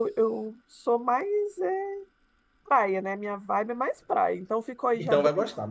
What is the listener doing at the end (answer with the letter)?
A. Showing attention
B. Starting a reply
B